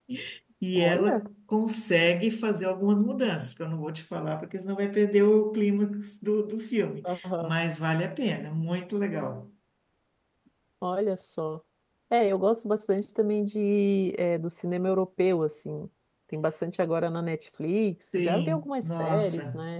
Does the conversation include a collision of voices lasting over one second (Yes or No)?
Yes